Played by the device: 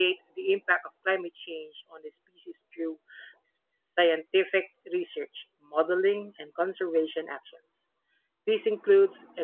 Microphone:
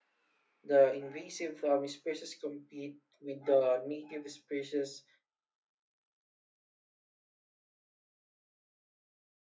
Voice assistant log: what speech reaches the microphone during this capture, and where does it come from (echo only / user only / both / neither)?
user only